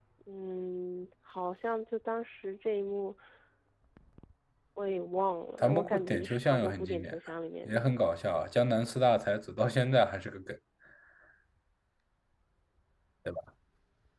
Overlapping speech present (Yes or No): Yes